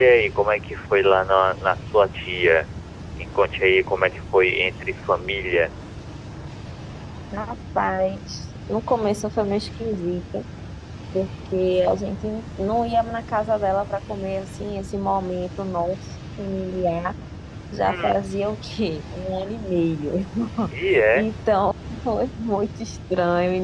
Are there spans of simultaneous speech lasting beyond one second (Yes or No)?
No